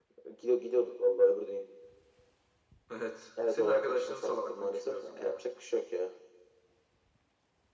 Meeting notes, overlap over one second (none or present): present